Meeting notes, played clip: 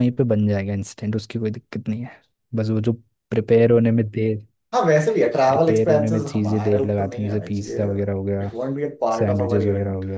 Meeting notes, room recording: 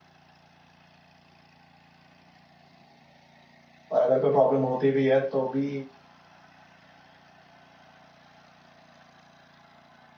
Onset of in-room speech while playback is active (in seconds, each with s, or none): 3.9 s